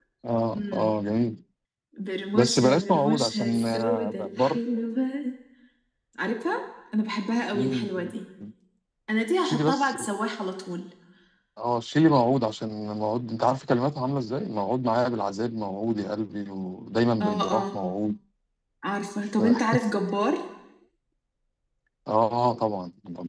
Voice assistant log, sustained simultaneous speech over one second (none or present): present